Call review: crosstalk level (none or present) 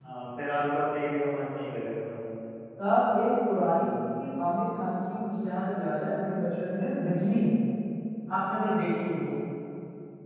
none